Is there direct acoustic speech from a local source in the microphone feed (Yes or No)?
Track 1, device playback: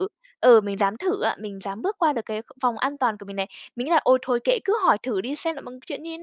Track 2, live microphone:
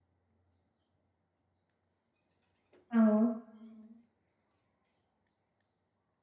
Yes